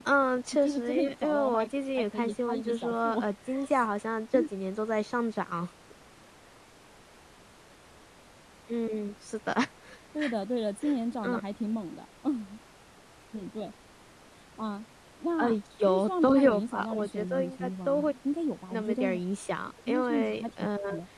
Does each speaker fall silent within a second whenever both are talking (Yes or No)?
No